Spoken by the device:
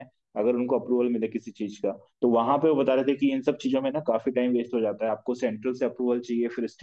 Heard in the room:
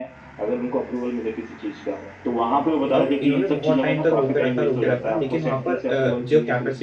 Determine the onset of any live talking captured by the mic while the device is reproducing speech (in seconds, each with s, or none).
2.9 s